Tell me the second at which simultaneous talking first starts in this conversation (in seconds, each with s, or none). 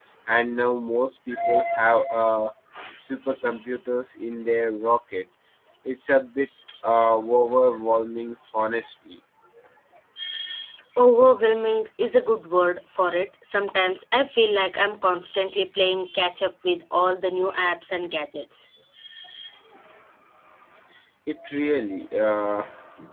none